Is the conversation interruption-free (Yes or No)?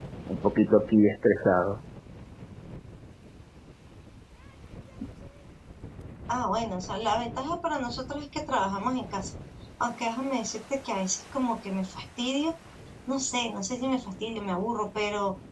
Yes